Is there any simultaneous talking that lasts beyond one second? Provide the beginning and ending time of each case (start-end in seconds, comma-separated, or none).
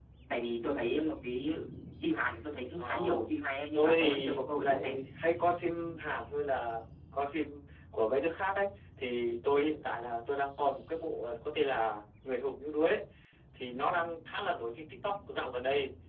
3.7-5.0